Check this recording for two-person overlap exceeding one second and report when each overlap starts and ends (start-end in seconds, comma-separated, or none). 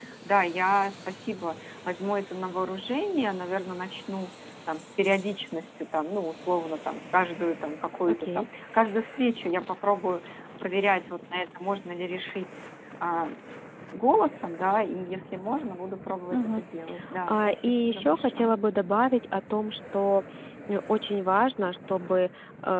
17.2-18.6